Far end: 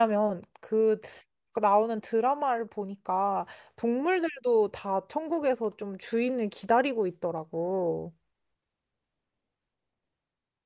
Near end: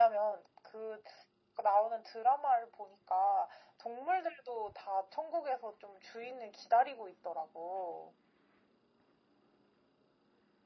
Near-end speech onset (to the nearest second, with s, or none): none